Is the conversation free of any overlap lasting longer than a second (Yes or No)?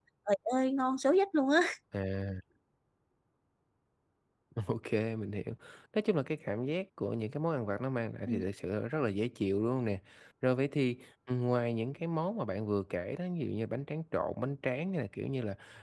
Yes